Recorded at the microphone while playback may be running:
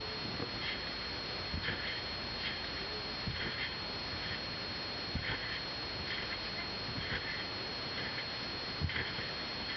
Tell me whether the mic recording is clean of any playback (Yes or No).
Yes